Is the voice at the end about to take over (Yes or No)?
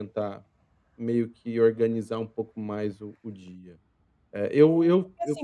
Yes